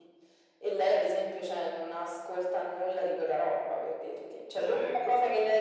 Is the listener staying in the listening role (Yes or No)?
Yes